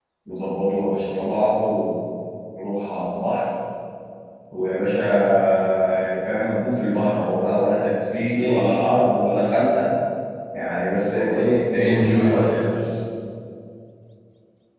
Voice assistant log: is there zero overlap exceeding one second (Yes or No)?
No